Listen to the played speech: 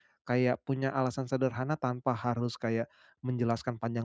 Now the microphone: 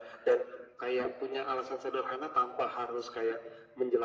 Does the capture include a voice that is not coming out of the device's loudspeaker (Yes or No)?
No